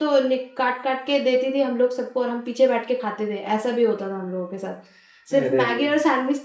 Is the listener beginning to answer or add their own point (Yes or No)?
No